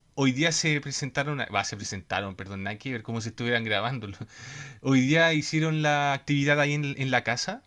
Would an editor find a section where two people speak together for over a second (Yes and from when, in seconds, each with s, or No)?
No